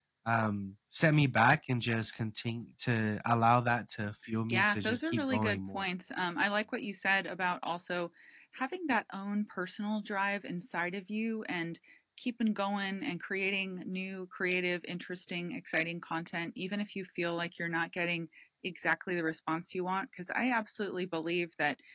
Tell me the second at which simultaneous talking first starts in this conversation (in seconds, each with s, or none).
4.5 s